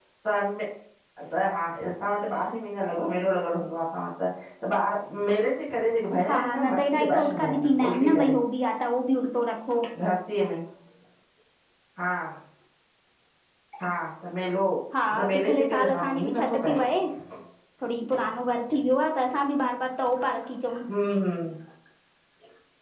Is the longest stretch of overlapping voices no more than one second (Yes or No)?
No